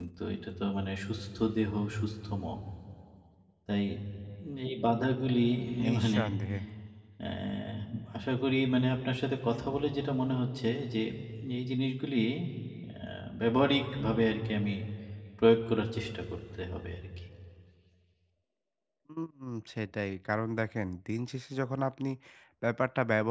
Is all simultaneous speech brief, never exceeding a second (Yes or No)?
Yes